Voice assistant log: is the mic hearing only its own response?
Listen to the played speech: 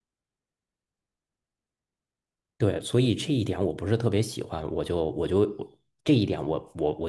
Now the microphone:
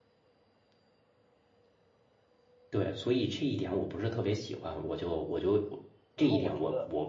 No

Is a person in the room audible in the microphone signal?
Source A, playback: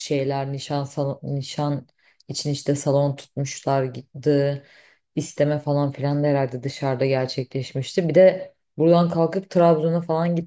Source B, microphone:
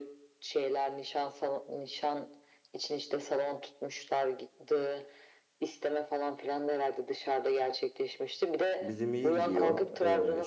Yes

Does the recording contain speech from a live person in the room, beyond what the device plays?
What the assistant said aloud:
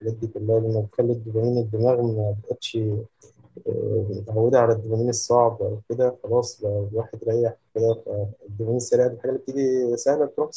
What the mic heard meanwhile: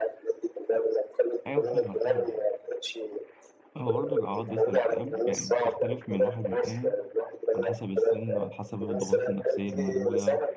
Yes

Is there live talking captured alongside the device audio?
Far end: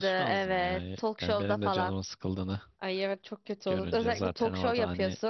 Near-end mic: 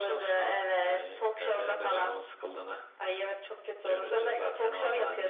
No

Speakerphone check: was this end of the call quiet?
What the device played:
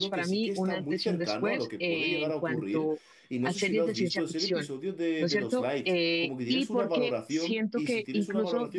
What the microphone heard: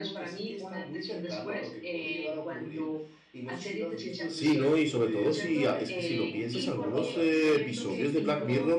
No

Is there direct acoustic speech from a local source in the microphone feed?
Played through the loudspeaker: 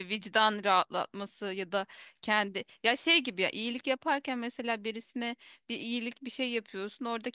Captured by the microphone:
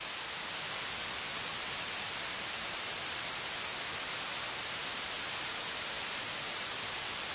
No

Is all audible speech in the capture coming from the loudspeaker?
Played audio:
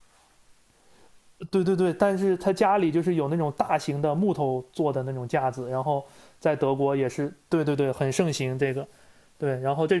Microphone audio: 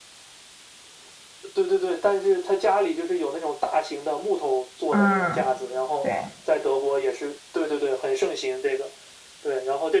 No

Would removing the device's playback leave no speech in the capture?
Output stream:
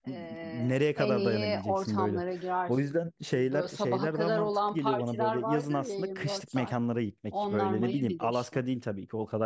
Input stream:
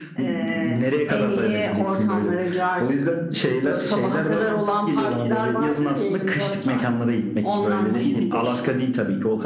Yes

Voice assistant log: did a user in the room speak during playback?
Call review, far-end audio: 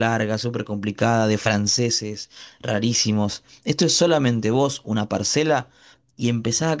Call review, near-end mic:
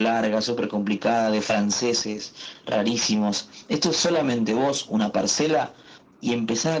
No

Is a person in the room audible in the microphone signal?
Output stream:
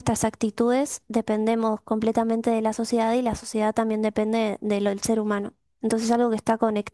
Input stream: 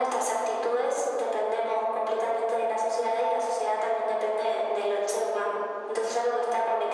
No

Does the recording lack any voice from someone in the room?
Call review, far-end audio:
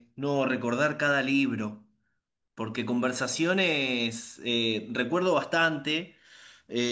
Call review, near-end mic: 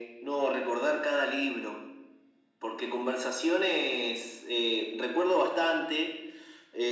Yes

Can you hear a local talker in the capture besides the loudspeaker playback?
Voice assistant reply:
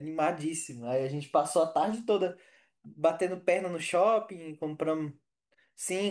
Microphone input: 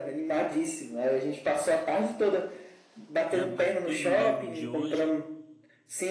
Yes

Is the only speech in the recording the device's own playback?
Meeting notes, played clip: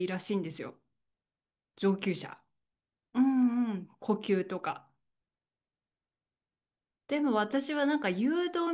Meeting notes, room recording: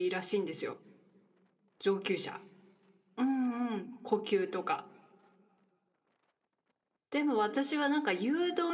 Yes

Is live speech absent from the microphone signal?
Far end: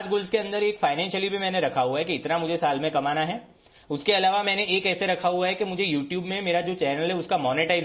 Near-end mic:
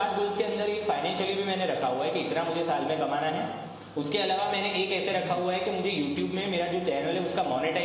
No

